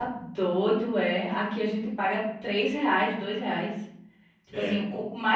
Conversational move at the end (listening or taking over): listening